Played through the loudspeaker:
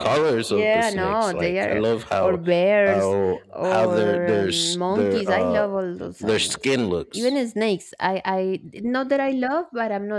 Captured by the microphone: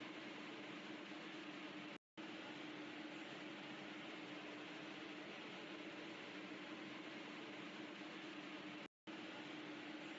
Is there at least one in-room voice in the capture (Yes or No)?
No